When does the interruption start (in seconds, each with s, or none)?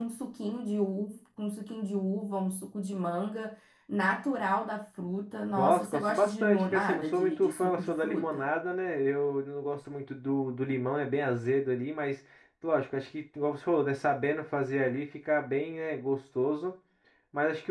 5.5 s